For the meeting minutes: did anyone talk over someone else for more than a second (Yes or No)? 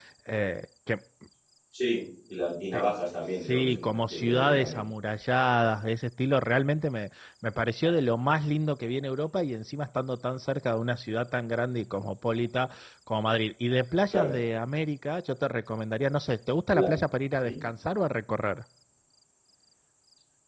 Yes